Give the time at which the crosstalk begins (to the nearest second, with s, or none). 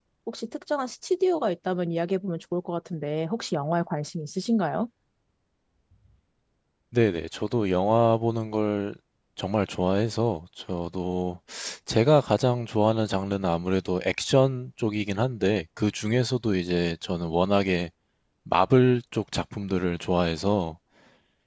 none